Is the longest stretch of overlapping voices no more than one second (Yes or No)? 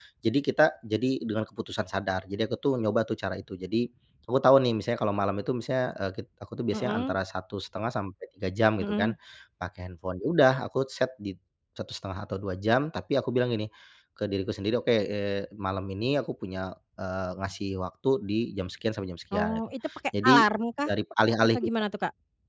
Yes